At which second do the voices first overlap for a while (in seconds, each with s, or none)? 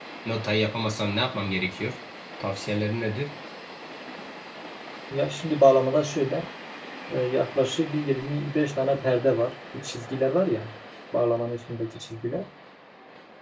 none